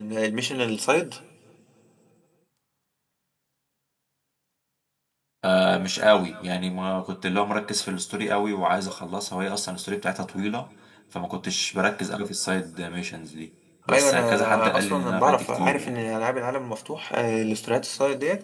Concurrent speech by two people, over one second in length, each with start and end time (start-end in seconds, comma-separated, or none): 13.9-16.0